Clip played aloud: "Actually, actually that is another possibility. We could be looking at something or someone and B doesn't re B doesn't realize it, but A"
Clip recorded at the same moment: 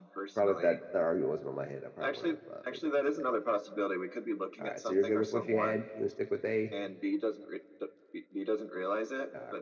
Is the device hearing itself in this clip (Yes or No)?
Yes